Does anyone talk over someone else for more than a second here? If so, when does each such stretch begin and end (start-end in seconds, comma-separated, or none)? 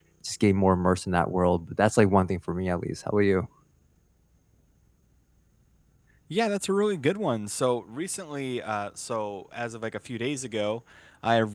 none